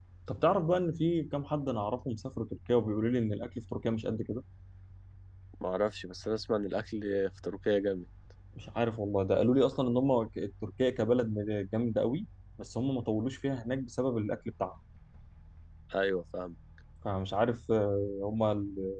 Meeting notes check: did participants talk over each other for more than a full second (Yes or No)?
No